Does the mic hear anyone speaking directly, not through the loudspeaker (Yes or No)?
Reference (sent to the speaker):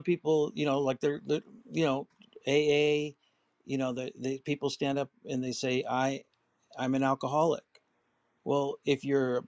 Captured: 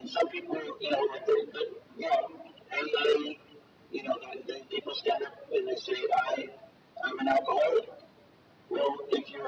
No